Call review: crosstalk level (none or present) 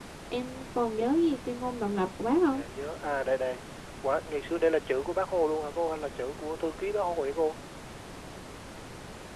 none